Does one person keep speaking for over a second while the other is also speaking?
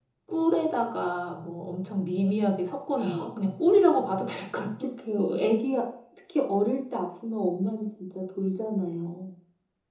No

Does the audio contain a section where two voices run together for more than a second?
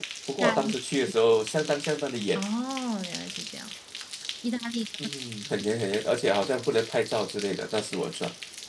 No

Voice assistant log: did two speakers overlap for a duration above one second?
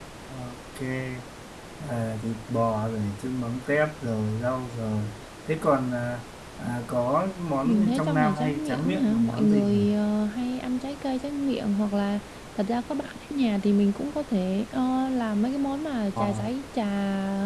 Yes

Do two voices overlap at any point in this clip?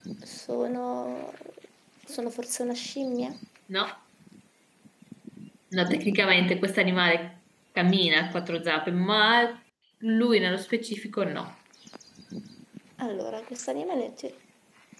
No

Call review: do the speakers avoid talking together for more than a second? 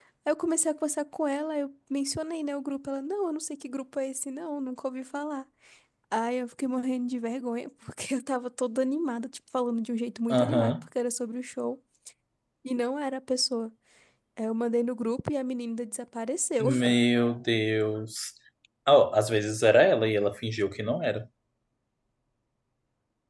Yes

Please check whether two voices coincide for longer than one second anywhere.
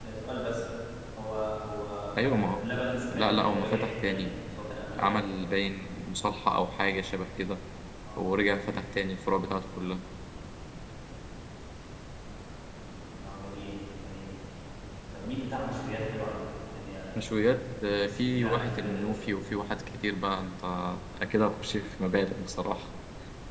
Yes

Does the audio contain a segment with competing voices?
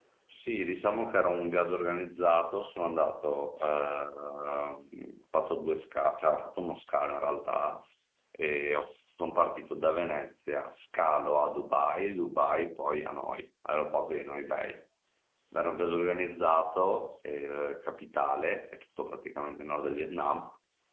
No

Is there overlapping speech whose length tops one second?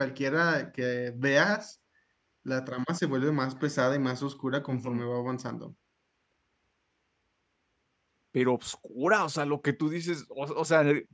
No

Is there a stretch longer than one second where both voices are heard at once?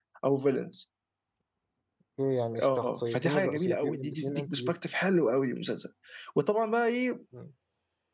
Yes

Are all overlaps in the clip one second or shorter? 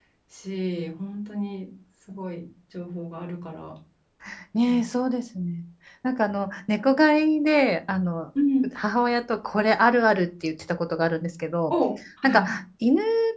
Yes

